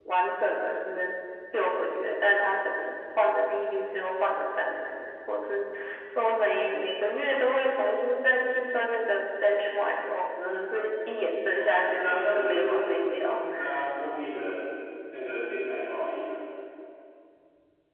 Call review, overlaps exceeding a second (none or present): present